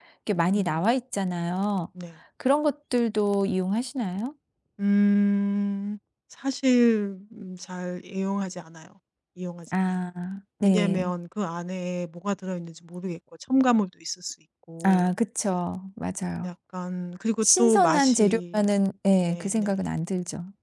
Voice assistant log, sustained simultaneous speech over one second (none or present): present